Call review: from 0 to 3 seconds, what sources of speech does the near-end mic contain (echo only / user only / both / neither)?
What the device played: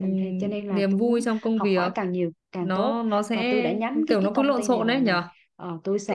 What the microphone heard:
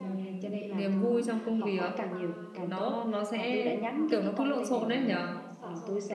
both